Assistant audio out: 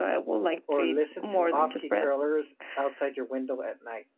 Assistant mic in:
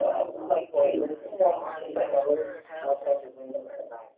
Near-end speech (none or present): present